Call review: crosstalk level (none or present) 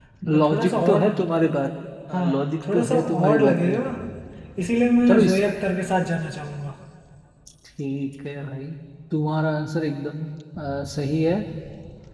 present